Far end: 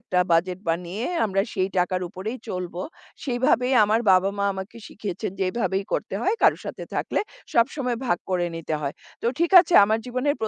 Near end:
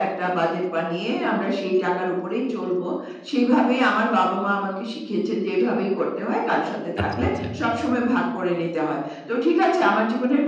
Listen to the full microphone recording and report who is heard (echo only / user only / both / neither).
both